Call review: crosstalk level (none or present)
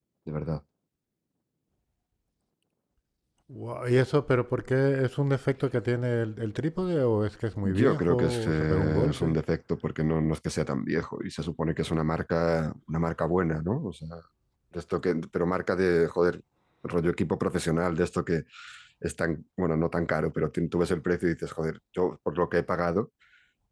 present